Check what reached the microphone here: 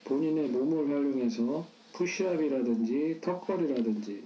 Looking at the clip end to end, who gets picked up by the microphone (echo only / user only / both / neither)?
echo only